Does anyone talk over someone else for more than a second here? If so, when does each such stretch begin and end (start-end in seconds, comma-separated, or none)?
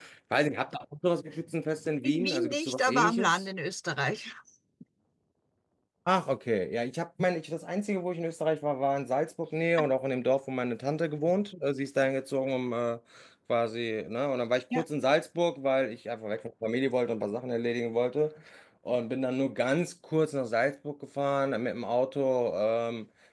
2.0-3.5